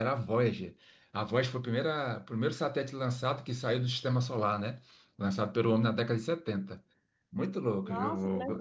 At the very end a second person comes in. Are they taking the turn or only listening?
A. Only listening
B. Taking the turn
B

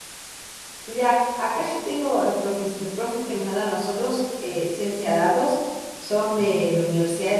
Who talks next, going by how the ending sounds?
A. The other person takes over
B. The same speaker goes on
B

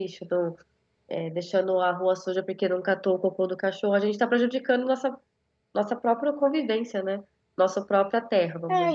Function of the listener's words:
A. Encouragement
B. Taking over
B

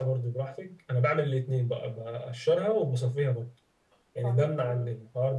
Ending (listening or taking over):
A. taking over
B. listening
B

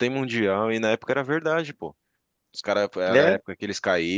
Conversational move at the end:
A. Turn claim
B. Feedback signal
B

